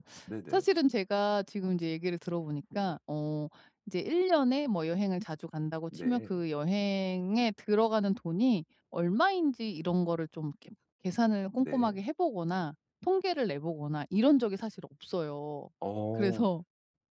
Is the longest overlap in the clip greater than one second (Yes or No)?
No